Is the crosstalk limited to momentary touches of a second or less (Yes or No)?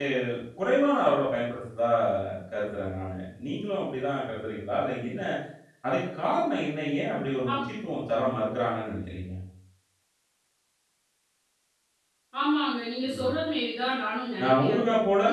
Yes